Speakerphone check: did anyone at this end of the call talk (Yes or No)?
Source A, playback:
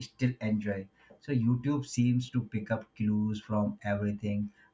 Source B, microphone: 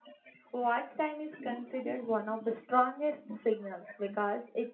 Yes